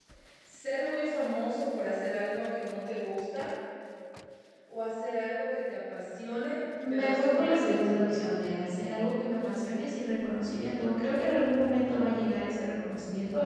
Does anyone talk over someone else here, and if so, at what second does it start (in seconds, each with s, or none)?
6.8 s